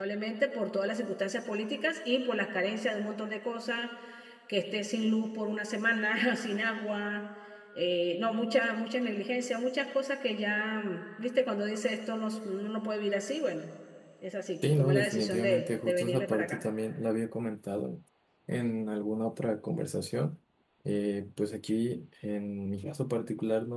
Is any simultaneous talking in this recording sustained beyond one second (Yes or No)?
Yes